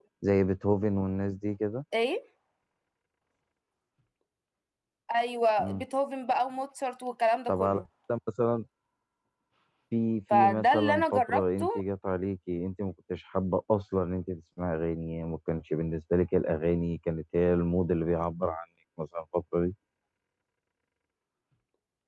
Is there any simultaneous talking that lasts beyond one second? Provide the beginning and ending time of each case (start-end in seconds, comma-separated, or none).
10.3-11.8